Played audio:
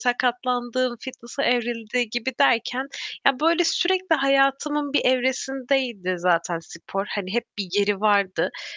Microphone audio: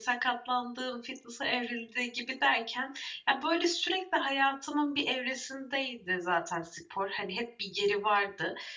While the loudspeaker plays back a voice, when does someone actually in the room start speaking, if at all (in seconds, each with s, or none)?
none